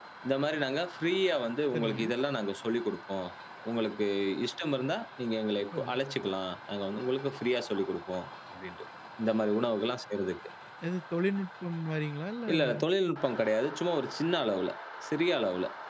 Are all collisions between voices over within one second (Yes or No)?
Yes